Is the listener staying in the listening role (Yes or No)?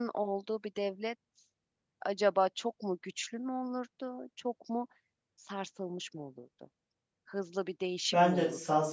No